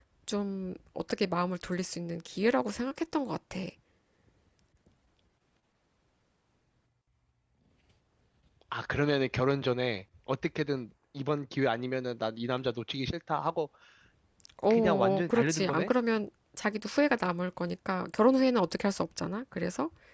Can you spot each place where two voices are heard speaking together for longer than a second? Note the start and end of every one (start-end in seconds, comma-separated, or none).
14.7-15.9